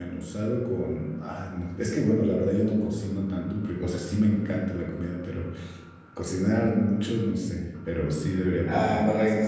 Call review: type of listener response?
taking over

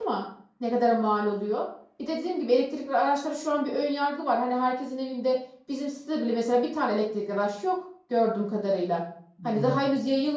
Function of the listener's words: listening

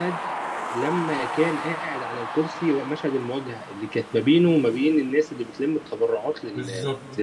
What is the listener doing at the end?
taking over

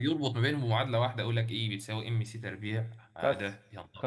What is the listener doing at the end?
taking over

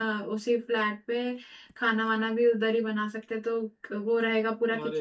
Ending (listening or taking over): taking over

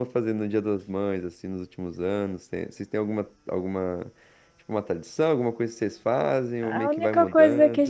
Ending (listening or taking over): taking over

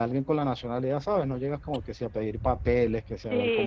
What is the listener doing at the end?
taking over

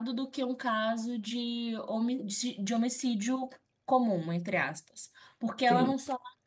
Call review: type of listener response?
listening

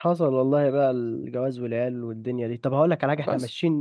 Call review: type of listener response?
listening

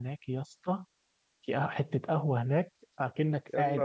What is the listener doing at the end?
listening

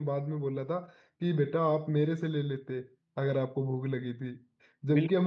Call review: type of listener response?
listening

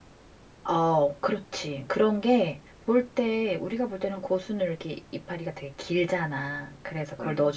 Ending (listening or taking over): listening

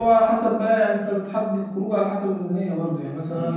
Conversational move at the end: listening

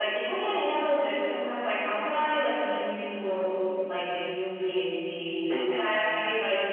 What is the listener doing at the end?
listening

